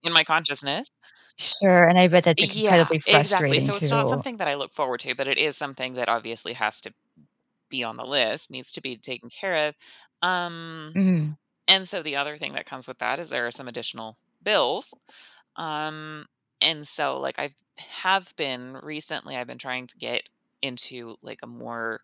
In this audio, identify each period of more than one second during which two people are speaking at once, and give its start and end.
2.4-4.2

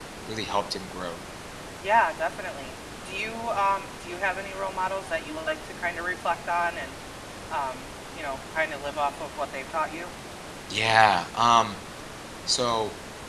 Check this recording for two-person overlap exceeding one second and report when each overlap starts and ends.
none

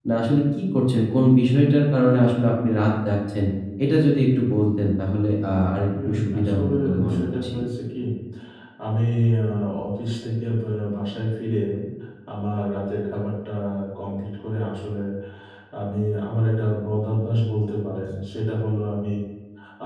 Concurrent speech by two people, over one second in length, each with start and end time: 6.1-7.5

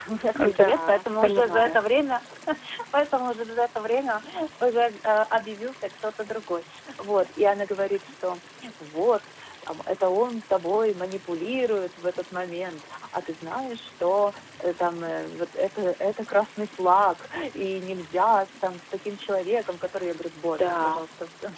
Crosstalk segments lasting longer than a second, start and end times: 0.6-1.8

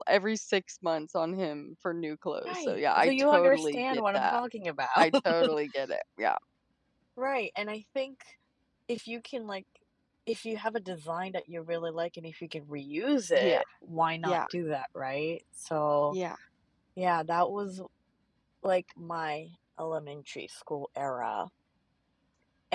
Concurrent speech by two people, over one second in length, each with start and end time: 2.5-4.4

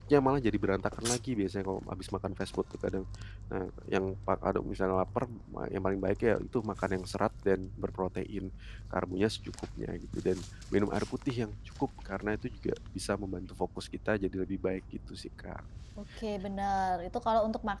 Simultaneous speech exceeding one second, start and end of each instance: none

